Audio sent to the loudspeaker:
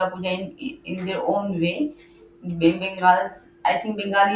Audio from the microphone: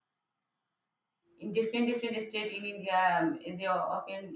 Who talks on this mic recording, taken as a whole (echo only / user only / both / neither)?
user only